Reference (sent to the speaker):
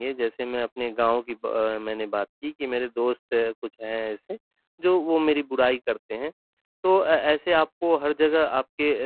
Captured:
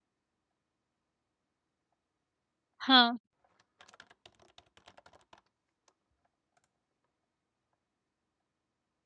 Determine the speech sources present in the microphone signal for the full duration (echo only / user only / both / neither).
user only